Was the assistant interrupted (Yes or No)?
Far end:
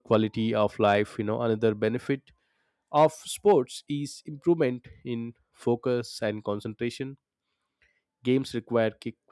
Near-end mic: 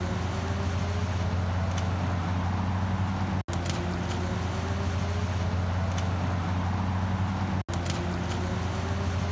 No